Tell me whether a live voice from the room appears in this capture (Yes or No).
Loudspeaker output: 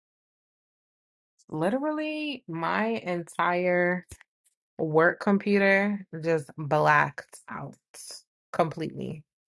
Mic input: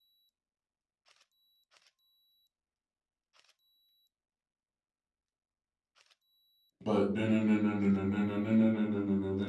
Yes